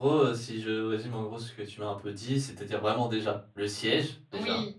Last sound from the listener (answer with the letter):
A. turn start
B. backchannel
B